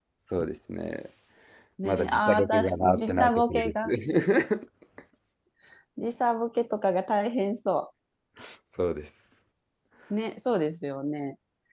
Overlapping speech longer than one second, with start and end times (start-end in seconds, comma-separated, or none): 1.8-3.9